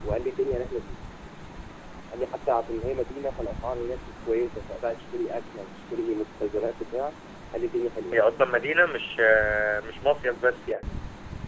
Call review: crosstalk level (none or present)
none